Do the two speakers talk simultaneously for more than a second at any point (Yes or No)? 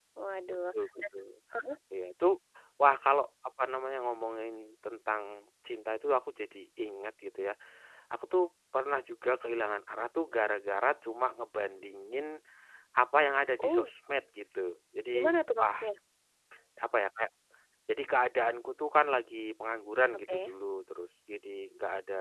No